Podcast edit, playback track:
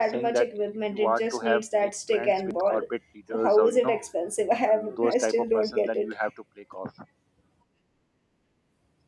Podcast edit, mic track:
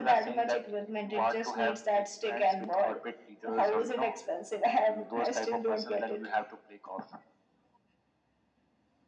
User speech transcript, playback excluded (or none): none